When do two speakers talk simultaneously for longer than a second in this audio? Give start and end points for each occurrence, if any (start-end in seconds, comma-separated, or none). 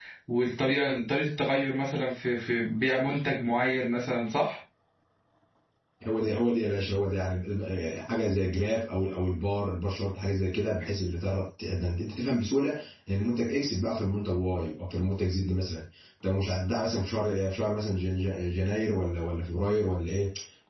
none